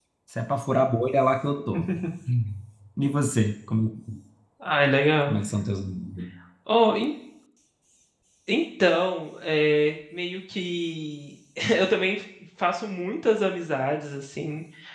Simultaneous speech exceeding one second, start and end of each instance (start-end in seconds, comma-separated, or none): none